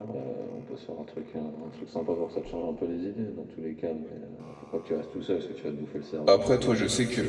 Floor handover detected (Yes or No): Yes